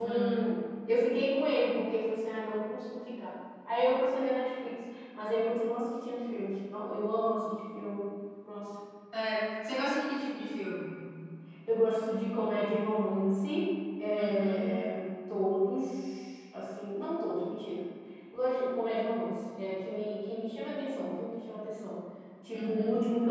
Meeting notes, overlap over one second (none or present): none